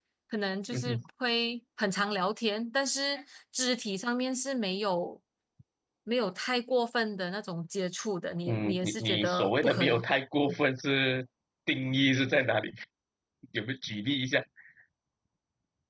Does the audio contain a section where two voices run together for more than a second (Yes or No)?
Yes